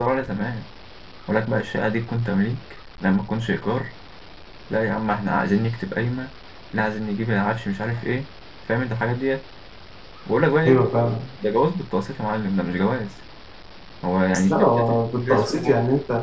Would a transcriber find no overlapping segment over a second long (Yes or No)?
No